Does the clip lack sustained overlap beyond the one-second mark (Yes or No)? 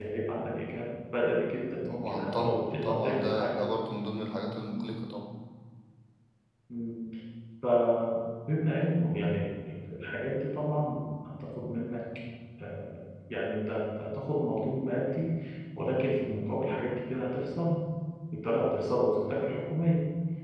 No